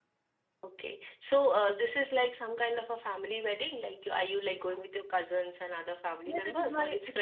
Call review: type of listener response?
taking over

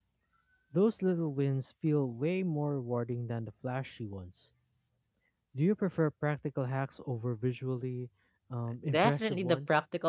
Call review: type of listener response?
taking over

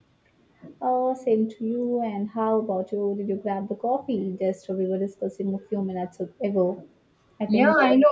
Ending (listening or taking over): taking over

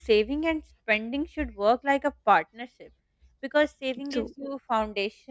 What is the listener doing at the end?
listening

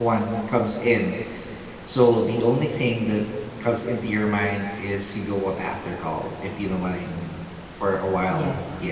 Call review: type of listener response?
listening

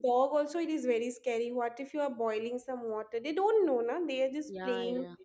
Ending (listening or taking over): taking over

